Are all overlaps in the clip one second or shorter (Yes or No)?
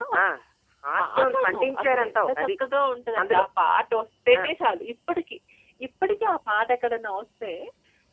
No